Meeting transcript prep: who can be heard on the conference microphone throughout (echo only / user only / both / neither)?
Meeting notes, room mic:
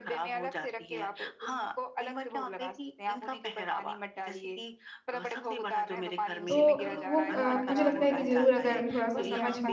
both